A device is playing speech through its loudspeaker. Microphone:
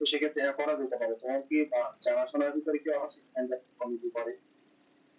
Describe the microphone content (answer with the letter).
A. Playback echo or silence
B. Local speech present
A